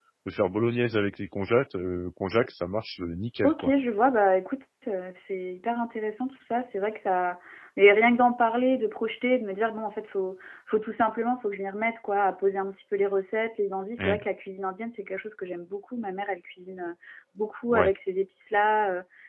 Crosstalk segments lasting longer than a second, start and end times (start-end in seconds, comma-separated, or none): none